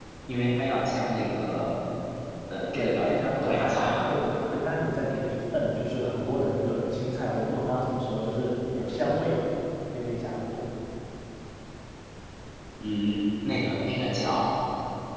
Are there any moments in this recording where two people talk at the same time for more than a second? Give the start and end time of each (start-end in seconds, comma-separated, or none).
2.7-4.1